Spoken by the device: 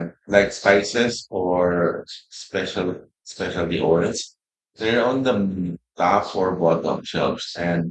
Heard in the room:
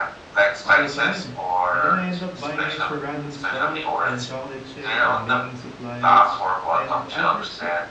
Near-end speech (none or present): present